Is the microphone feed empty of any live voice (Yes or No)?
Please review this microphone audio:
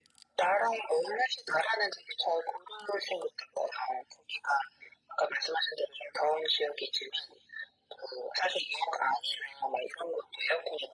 Yes